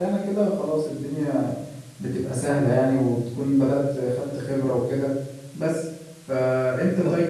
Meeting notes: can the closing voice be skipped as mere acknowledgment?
Yes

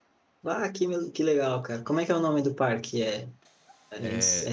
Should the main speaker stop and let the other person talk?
No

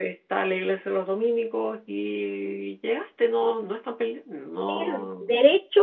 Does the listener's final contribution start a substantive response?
Yes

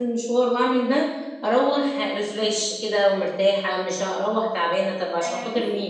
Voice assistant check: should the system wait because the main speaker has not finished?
No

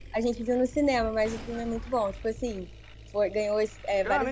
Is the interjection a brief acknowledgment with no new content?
No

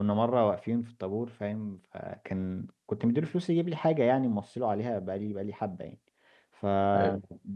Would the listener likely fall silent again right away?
Yes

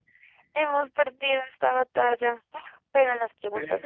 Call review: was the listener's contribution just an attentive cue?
Yes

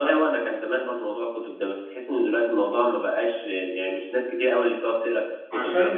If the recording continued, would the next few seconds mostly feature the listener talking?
Yes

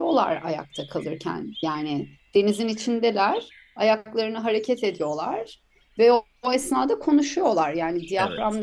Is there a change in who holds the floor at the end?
No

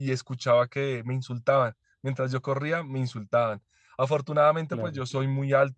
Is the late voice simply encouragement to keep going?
Yes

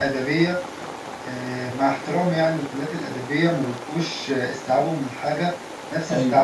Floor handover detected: No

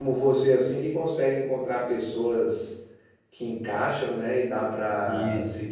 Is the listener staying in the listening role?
Yes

